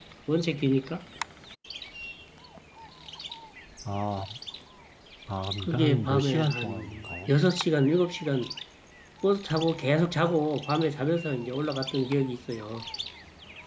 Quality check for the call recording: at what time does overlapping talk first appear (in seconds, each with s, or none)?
5.6 s